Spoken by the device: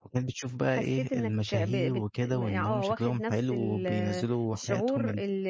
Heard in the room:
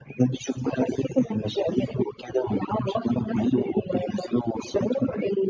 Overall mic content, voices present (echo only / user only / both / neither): echo only